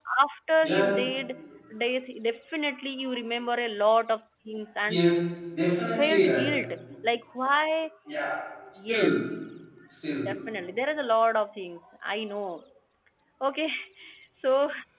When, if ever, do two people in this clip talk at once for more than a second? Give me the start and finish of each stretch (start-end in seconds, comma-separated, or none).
none